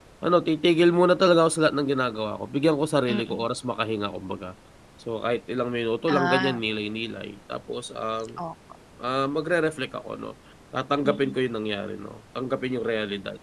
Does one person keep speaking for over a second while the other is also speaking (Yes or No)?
No